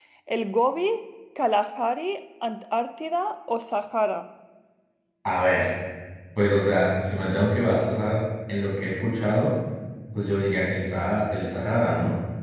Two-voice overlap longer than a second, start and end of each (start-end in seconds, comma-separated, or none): none